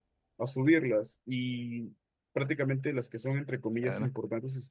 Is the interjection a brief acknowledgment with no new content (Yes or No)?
Yes